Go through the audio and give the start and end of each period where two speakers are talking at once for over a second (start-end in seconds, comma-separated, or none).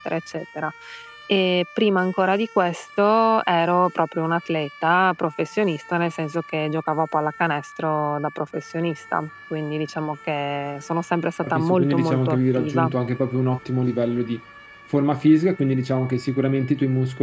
11.4-12.9